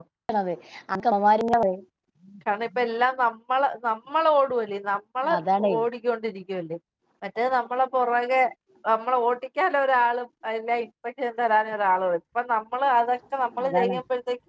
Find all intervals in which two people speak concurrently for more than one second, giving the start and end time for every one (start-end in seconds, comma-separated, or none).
none